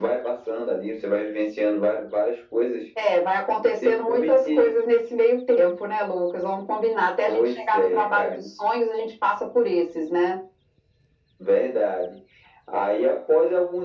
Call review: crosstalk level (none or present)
present